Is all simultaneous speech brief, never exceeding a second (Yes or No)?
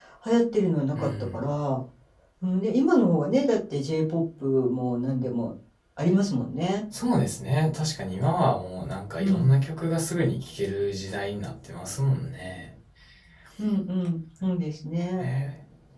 Yes